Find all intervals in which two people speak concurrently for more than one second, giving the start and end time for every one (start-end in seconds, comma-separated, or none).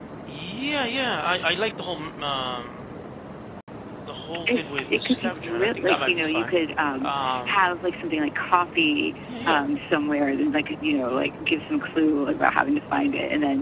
4.4-6.5